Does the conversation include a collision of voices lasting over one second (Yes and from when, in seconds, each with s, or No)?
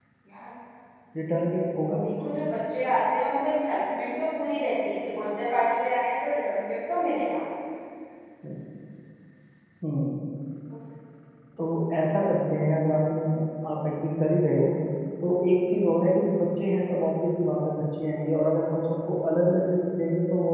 No